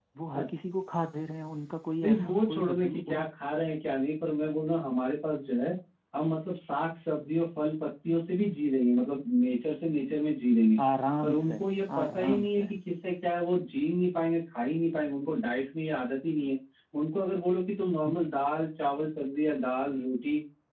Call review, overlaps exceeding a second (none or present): present